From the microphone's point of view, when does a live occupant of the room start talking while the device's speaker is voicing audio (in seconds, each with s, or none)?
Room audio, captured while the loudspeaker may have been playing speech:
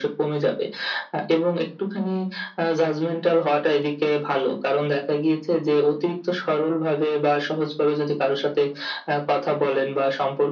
none